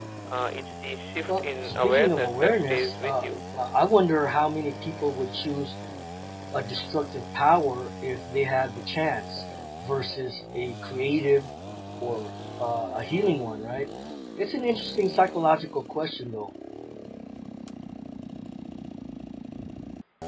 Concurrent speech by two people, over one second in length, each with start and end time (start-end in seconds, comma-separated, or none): 1.3-3.2